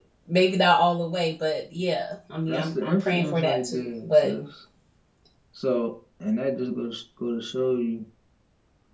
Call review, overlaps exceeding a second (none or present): present